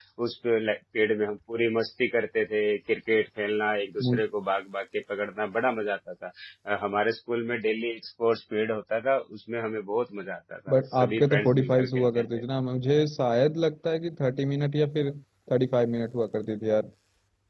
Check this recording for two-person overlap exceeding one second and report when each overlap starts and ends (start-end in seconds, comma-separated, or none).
10.7-12.4